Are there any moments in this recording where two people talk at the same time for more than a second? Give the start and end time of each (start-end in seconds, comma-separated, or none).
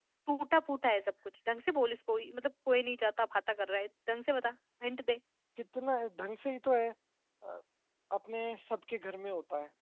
none